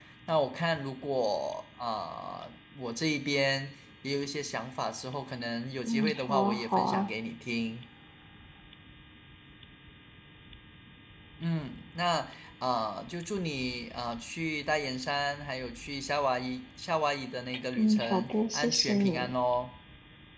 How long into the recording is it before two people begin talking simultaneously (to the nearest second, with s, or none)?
6 s